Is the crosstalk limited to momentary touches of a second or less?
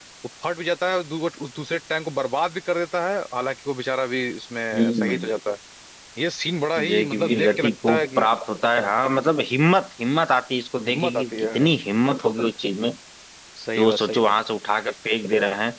No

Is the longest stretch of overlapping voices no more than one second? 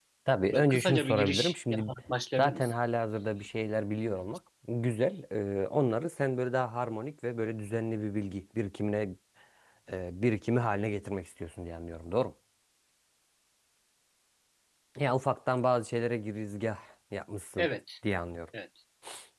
No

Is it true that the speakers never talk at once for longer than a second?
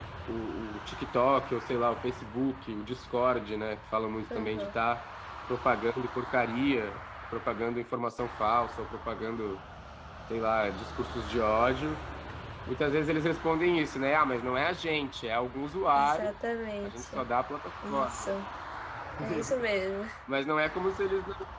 Yes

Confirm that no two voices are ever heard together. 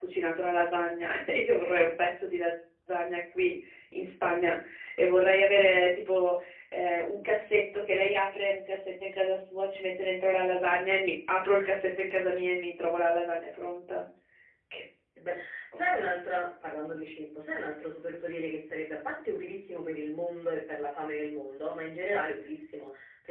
Yes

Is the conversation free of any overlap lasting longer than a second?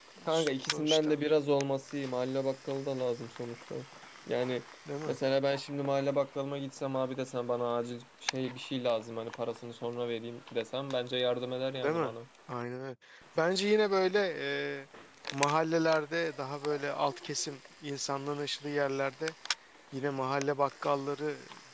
Yes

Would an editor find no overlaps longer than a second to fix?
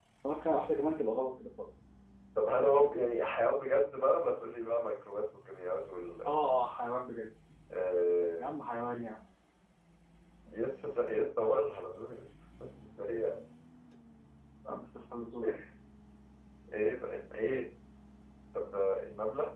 Yes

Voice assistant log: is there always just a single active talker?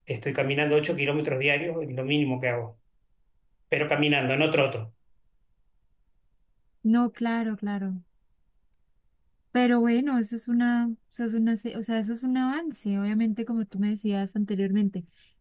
Yes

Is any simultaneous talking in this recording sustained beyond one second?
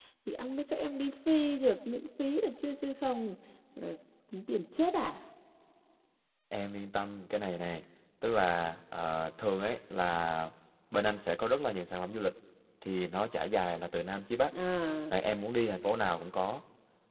No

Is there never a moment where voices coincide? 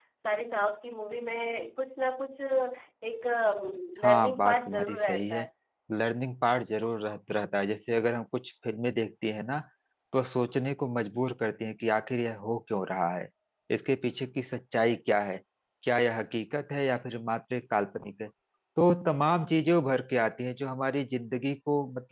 No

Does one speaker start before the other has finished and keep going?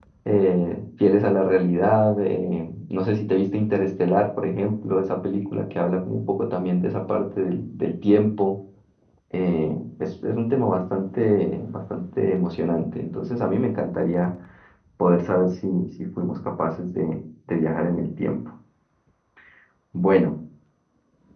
No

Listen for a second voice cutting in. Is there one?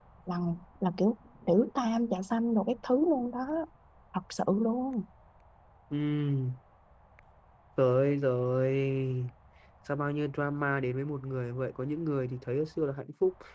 No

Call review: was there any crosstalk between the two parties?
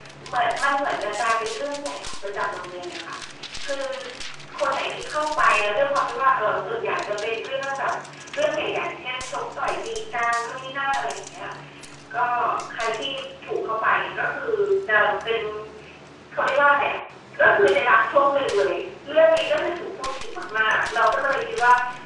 No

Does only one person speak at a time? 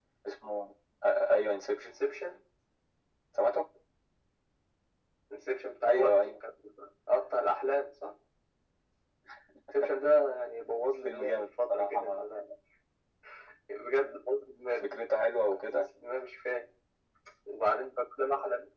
No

